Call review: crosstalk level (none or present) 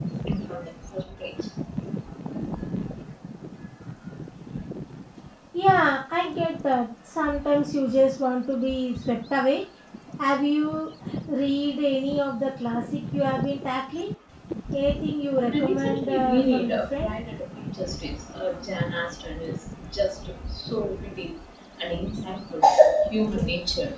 present